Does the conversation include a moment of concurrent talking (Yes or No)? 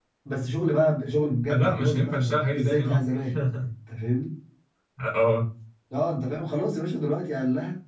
Yes